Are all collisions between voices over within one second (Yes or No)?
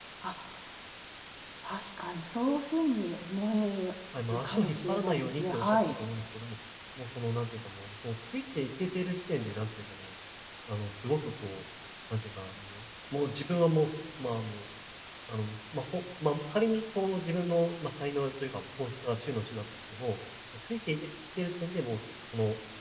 No